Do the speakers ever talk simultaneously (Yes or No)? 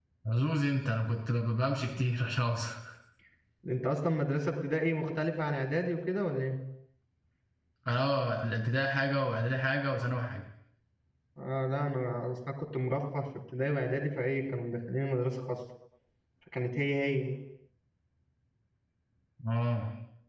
No